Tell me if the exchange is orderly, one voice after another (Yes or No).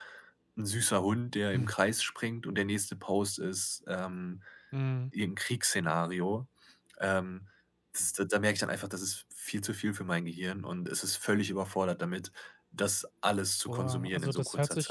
No